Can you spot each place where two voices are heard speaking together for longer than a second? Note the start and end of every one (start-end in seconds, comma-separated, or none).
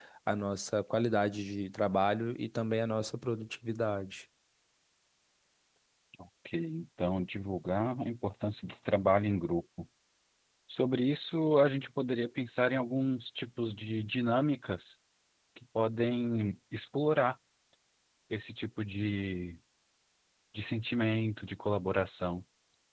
none